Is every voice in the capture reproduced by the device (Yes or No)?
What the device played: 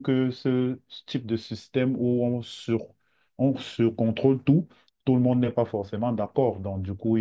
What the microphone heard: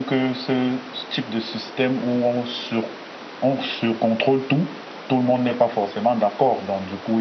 Yes